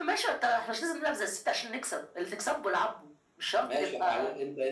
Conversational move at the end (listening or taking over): taking over